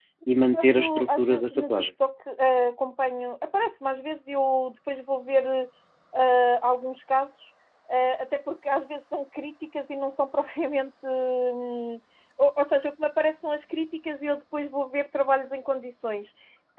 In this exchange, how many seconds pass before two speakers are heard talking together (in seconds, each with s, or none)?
0.5 s